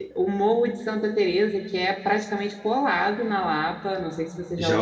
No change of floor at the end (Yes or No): No